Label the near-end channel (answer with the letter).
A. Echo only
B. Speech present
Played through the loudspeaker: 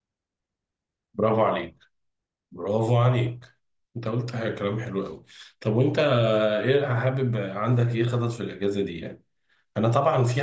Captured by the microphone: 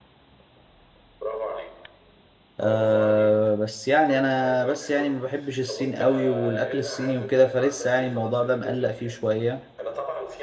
B